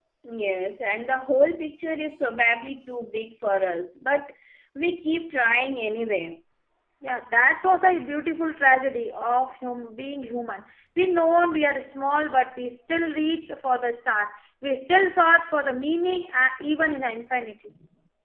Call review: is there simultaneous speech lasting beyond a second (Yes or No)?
No